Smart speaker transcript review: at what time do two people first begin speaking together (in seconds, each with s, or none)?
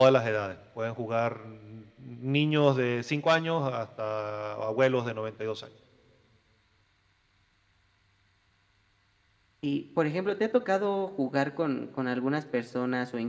none